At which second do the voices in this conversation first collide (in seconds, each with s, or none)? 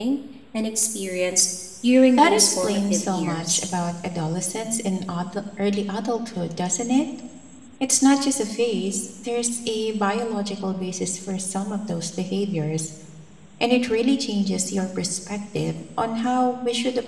2.2 s